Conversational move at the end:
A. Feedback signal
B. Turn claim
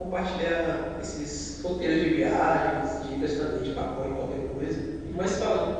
B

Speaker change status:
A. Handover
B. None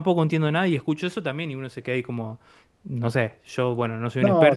B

